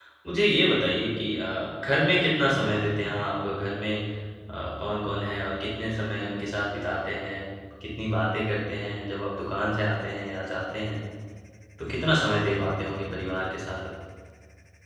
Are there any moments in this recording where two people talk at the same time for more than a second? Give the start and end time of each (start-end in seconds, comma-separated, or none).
none